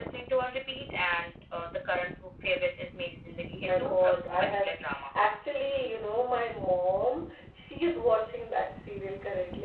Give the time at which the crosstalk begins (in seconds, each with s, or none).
3.7 s